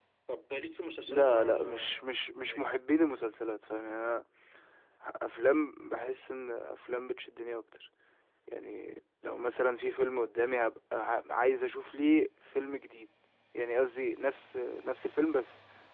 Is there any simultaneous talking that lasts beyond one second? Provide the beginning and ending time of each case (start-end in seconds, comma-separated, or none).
1.1-2.7